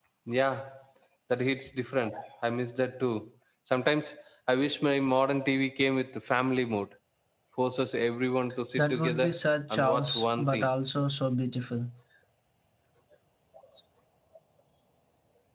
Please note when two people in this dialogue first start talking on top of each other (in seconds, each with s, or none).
8.8 s